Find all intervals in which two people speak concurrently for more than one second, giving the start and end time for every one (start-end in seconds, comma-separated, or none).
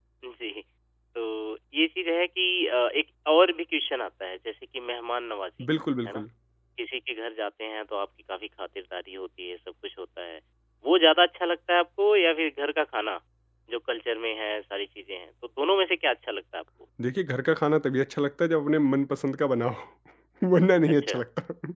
none